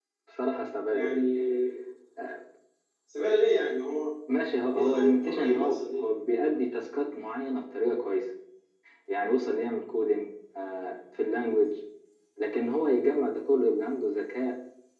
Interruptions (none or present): present